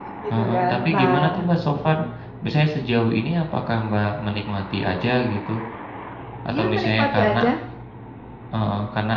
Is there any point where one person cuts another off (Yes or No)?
Yes